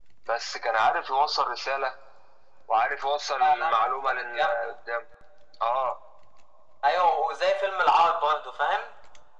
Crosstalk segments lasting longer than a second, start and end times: 3.3-4.8

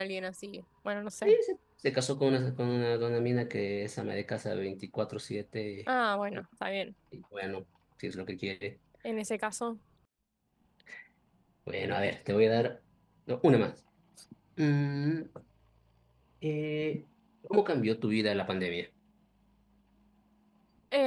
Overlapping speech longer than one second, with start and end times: none

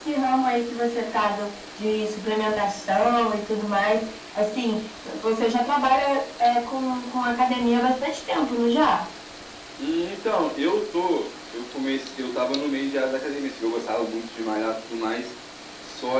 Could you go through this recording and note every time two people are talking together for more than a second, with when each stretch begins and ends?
none

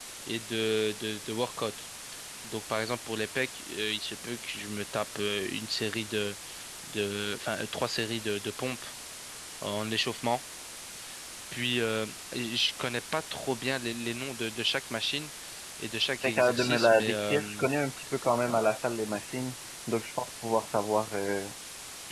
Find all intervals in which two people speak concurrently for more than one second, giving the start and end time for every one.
16.2-17.6

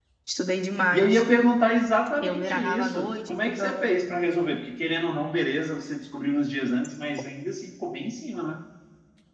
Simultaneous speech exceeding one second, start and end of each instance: 2.2-4.0

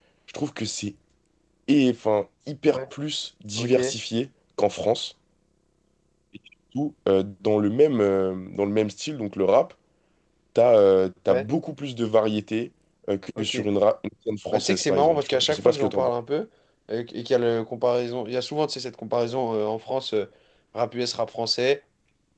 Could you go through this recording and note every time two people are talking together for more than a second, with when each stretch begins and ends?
14.5-16.1

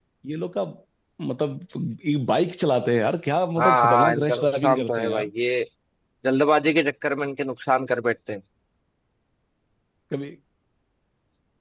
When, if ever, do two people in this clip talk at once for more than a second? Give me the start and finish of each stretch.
3.6-5.3

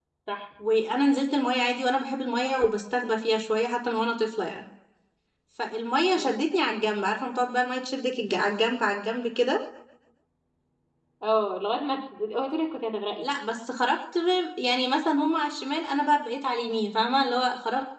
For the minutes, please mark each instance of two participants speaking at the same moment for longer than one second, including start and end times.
none

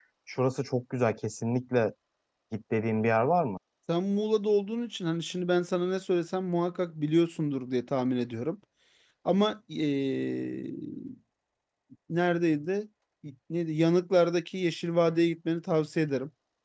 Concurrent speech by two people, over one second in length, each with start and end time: none

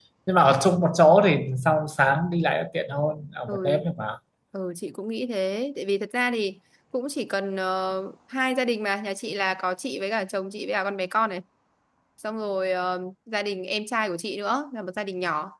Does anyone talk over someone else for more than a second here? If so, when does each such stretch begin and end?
none

